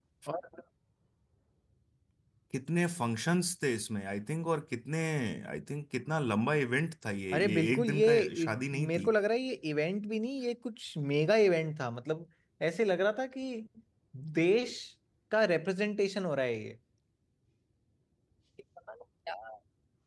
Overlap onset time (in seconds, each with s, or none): 7.3 s